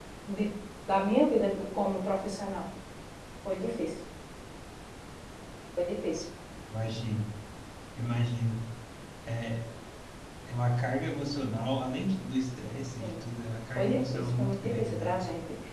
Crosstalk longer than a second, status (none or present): present